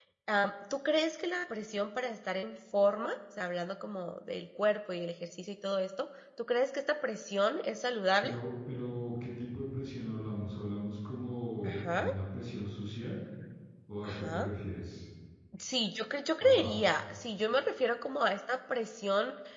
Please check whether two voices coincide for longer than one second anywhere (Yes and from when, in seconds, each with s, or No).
No